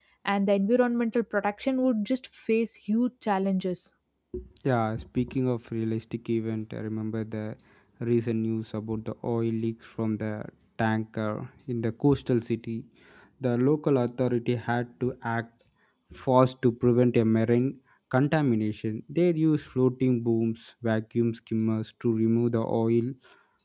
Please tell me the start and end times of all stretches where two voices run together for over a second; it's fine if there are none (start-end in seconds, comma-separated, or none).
none